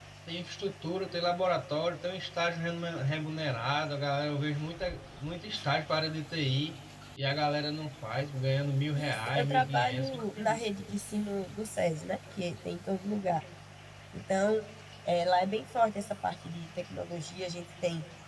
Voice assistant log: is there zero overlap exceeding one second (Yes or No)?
No